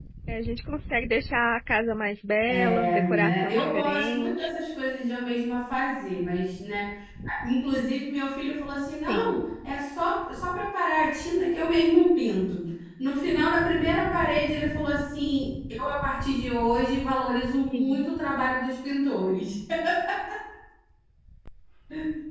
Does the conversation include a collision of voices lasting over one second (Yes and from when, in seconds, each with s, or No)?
Yes, from 2.5 s